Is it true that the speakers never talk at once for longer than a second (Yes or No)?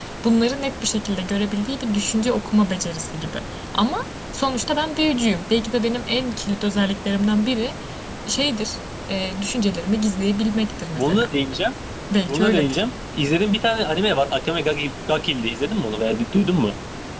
Yes